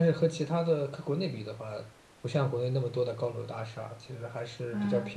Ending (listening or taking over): listening